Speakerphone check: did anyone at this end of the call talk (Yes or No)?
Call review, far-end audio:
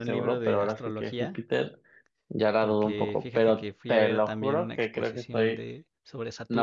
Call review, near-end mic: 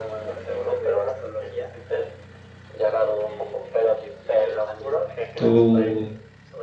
Yes